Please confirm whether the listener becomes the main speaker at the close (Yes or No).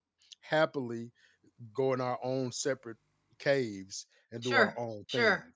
Yes